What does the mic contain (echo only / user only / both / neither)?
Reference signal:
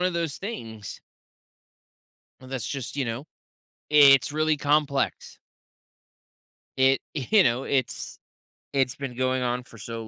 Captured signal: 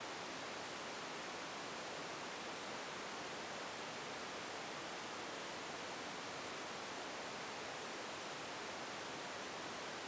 neither